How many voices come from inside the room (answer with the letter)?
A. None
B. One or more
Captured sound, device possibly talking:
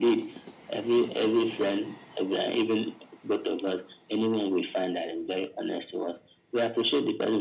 A